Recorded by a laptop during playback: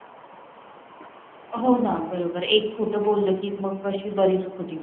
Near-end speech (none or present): present